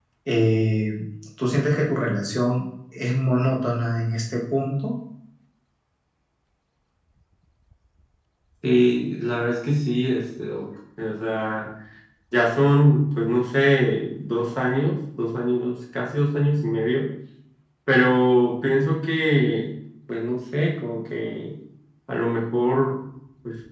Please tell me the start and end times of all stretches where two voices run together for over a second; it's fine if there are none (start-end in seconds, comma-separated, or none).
none